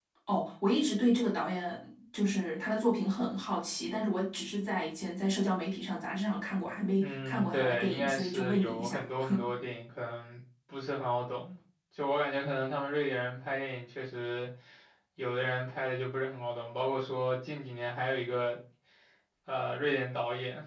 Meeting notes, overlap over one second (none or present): present